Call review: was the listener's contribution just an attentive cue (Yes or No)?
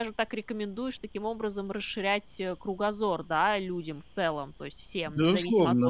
No